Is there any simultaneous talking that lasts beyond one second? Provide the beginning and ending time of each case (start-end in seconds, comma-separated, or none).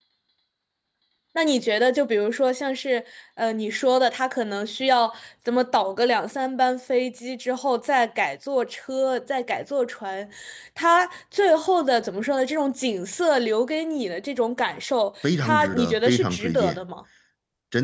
15.2-16.8